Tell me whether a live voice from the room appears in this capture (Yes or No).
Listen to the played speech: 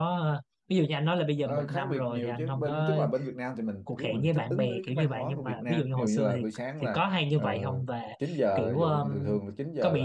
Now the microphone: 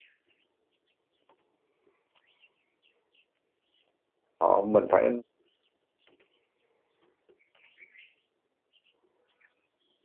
Yes